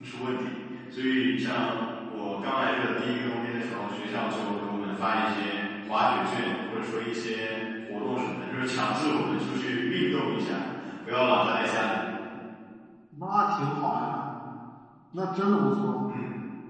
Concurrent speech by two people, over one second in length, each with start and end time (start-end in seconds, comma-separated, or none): none